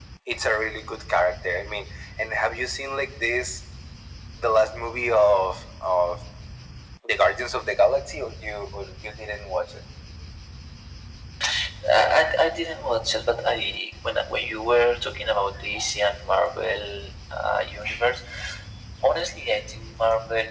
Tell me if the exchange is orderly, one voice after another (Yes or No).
Yes